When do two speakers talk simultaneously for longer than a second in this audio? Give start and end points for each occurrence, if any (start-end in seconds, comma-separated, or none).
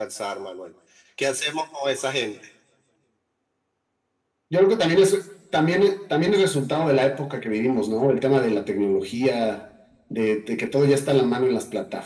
none